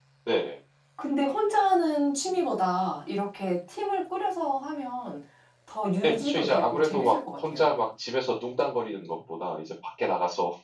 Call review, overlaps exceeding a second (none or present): present